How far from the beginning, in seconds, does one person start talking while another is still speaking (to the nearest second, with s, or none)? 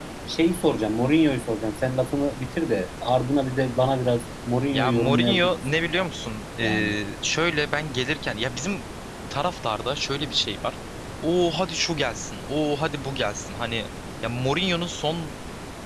5 s